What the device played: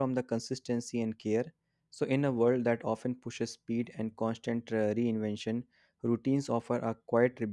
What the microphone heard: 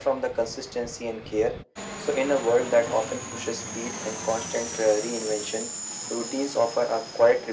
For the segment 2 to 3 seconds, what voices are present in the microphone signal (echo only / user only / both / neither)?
echo only